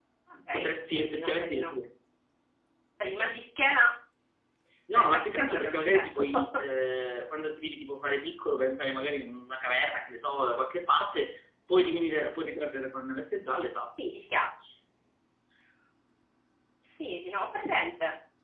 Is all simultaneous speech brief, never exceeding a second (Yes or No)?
No